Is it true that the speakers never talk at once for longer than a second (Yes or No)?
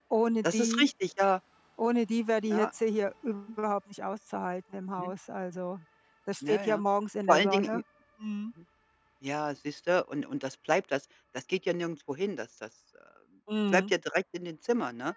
Yes